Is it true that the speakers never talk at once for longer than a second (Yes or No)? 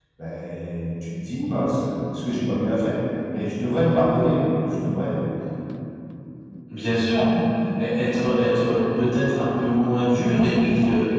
Yes